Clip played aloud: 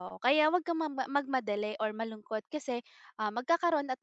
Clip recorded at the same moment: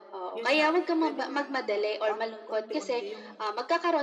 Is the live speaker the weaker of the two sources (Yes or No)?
Yes